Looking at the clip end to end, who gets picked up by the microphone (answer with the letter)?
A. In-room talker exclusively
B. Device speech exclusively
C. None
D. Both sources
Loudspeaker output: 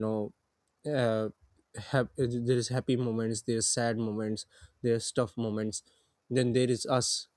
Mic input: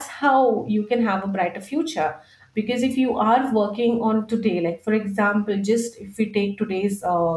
A